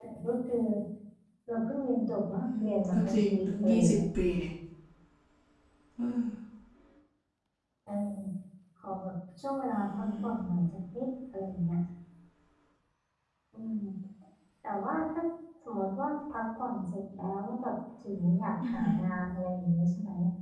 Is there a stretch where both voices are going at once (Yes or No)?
Yes